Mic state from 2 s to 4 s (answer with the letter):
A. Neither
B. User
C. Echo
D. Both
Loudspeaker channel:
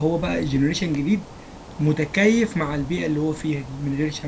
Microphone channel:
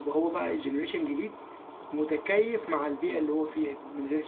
C